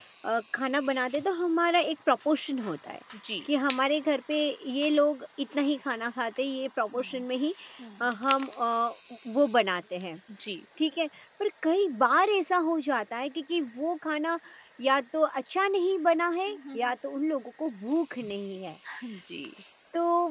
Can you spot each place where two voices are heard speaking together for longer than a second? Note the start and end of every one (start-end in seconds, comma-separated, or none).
none